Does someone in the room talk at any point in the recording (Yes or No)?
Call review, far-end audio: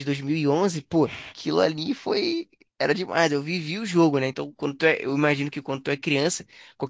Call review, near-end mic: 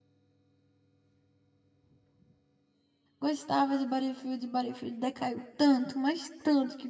Yes